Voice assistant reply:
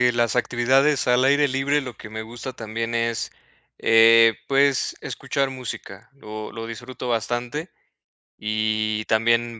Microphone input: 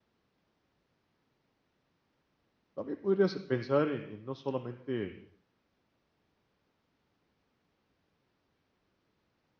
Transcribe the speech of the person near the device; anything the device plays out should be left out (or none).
también podrías pensar en, en no solamente,